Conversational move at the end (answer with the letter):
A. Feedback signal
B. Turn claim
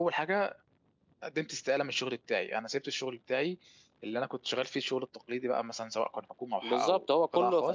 B